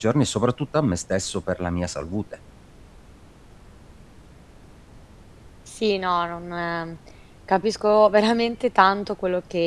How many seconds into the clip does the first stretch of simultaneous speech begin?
none

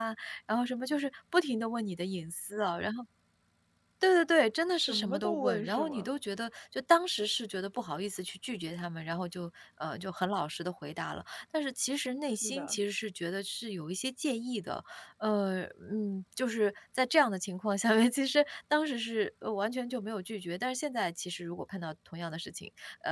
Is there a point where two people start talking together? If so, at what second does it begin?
4.7 s

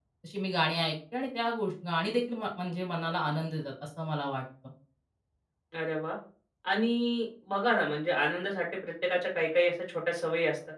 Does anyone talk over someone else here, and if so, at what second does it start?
none

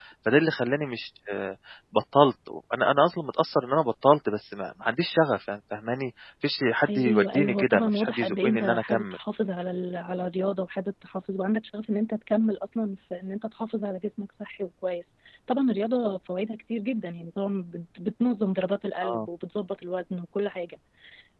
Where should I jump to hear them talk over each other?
6.8 s

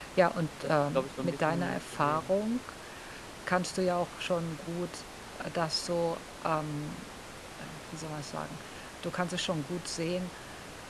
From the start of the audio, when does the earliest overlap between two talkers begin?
0.6 s

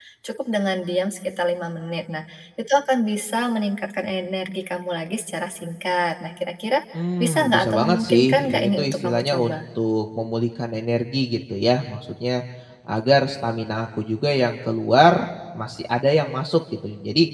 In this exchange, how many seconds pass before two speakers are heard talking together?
7.2 s

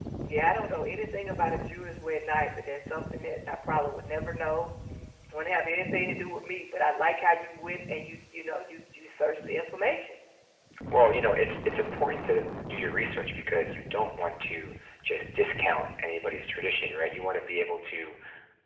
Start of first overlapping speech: none

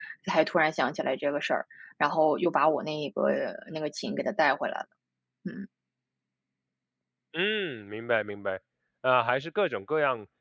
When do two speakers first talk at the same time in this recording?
none

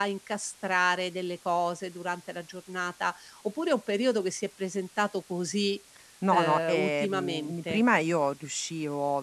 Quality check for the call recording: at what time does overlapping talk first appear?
6.3 s

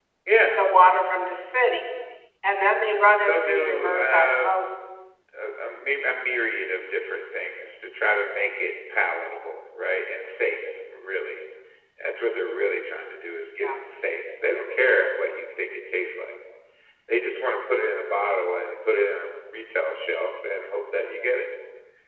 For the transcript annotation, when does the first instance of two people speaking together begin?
3.2 s

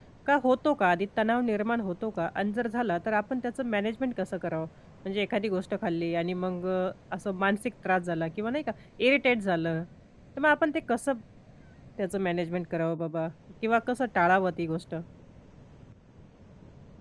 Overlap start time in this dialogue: none

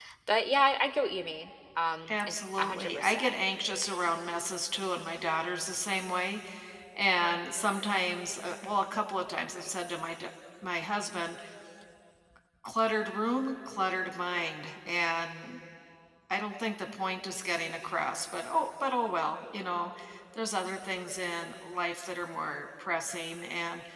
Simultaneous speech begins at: 2.1 s

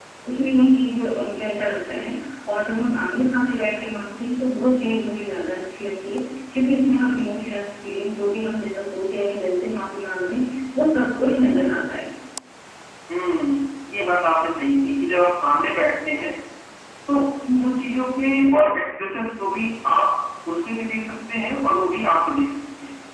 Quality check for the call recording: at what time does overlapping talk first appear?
none

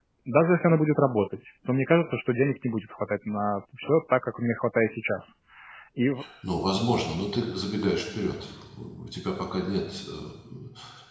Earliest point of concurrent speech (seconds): none

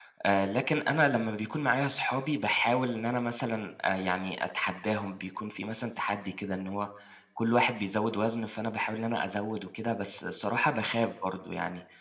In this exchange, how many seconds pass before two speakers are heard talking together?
none

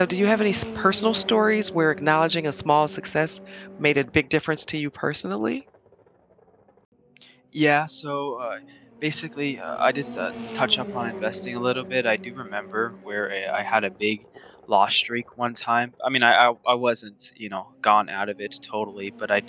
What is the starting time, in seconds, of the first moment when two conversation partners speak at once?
none

